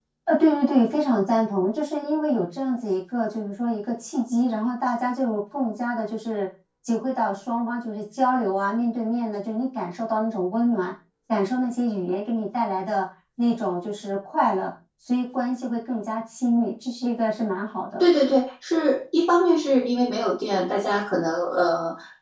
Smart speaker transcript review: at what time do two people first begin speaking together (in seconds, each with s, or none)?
none